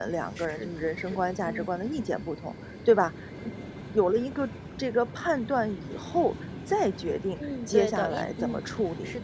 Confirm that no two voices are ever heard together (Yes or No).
No